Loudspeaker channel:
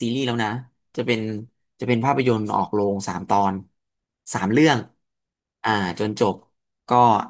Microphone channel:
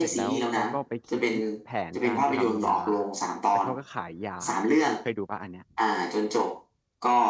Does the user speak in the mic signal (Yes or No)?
Yes